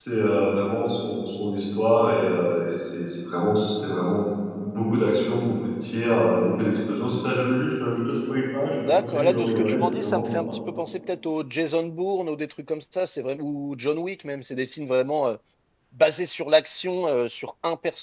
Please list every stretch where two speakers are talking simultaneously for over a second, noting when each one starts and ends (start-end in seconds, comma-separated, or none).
8.7-10.3